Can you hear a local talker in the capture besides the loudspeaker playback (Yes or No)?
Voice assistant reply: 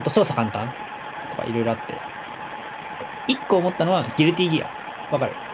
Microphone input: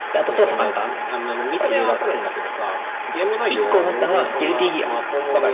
Yes